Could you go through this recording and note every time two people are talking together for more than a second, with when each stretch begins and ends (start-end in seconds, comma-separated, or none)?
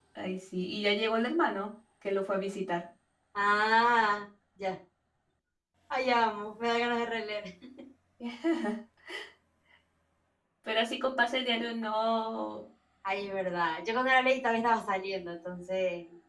none